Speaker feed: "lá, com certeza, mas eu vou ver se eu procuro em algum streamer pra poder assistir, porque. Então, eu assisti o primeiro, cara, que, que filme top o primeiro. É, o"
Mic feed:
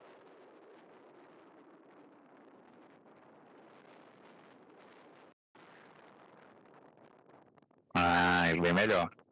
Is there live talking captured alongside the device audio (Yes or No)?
Yes